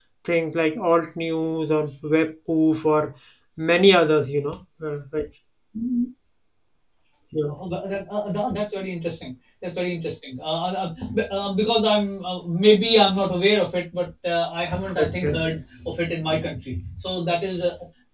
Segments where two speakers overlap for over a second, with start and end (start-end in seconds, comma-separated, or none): none